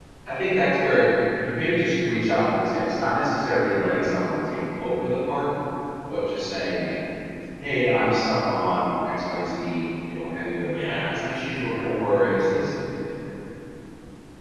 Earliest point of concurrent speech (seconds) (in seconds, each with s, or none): 10.6 s